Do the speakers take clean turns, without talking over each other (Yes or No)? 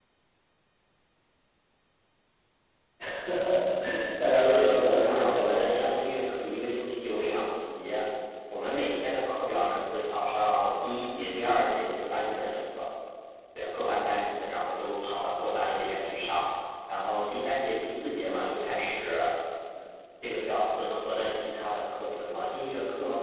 No